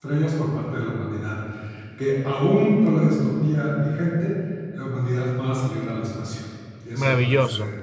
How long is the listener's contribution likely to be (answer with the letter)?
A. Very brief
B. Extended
B